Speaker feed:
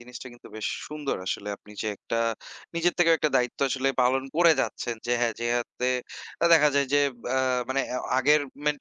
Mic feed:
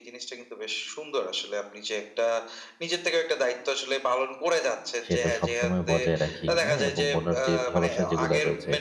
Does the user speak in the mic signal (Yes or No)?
Yes